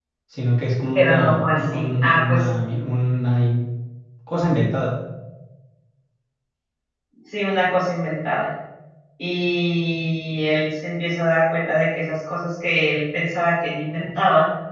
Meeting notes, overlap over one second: present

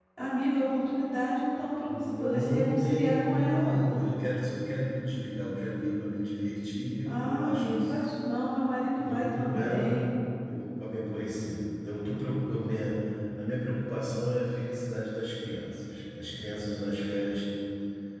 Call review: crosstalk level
present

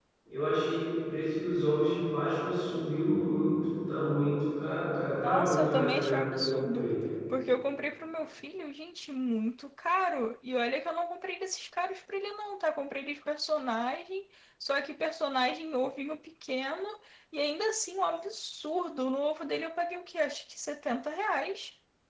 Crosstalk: present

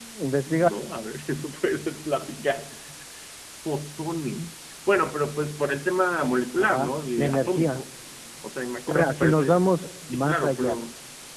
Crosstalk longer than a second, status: present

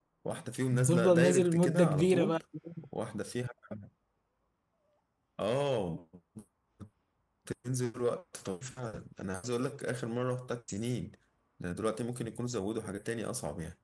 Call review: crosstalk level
present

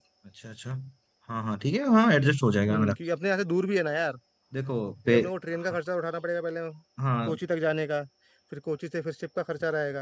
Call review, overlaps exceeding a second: none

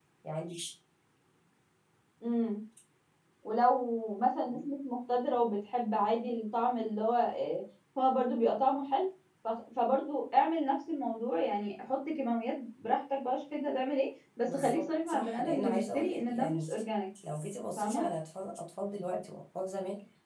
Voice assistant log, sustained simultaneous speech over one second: present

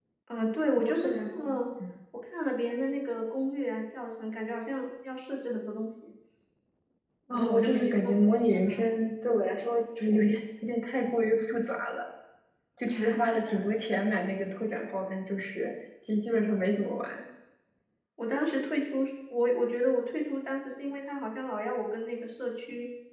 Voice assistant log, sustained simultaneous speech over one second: present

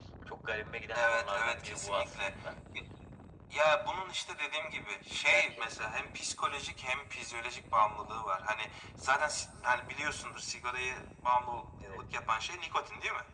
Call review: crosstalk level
present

